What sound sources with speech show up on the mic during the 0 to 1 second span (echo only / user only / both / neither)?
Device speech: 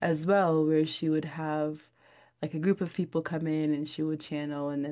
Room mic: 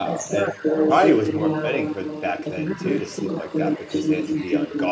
both